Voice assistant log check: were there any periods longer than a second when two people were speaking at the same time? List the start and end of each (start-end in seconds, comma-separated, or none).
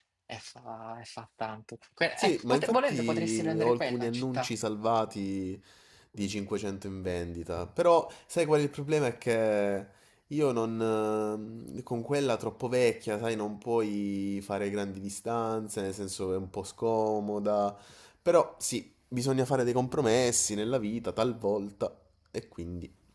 2.2-4.5